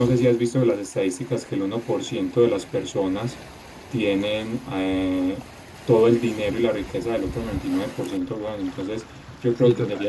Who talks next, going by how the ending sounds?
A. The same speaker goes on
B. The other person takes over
A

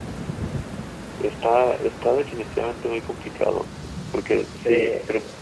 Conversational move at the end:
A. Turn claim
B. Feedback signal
B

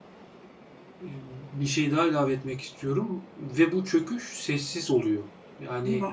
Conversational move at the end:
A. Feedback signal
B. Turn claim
A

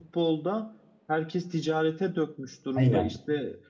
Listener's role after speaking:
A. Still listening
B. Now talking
A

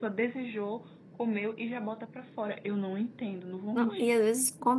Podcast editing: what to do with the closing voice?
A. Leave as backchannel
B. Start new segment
B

